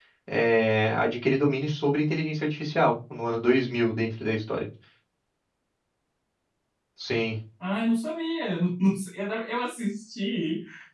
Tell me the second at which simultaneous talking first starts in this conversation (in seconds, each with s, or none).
none